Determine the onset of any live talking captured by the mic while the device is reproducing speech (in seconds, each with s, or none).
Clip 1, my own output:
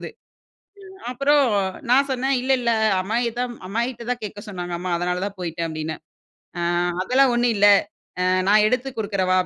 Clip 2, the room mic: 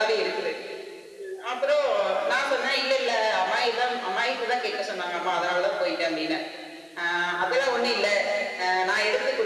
none